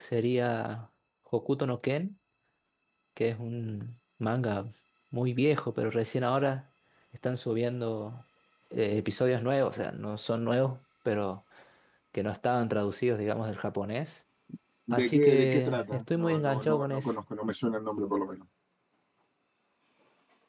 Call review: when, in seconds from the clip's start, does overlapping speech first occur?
15 s

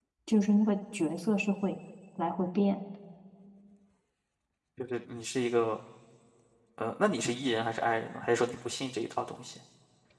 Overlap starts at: none

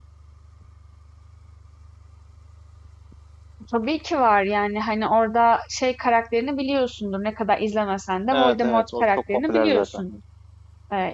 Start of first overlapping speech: 8 s

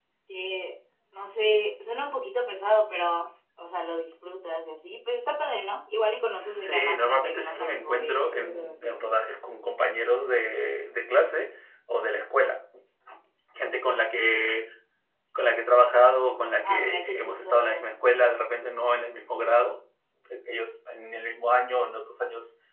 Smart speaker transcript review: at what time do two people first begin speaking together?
7 s

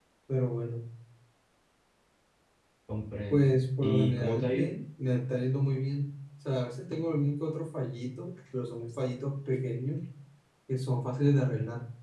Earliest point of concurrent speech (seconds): 3 s

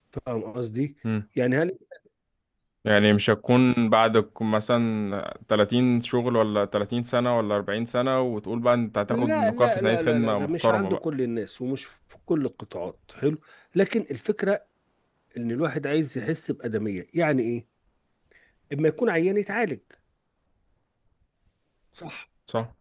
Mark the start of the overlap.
9 s

